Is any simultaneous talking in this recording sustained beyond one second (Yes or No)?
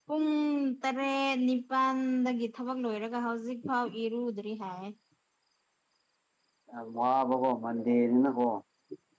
No